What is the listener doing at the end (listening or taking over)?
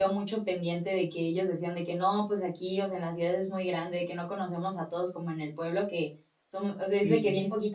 listening